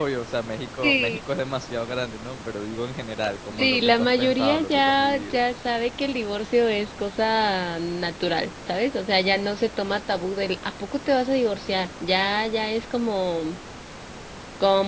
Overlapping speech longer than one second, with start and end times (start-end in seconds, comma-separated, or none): 3.6-5.4